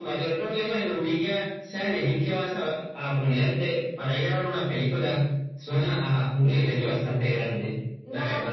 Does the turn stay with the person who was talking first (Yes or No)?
No